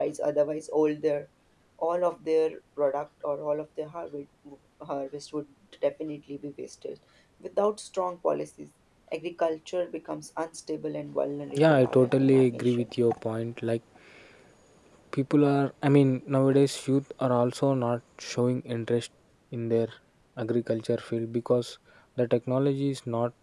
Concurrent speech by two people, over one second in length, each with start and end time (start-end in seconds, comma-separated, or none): 11.5-12.9